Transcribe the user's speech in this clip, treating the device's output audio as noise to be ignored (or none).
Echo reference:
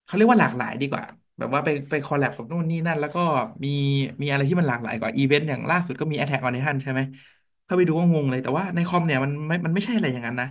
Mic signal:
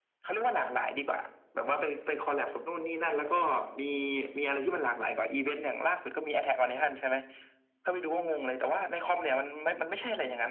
none